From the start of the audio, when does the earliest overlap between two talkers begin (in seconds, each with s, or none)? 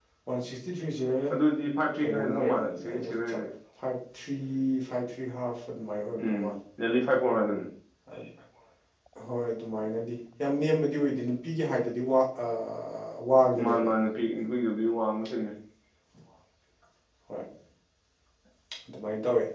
2.0 s